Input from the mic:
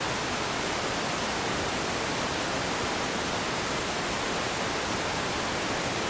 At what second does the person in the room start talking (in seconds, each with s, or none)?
none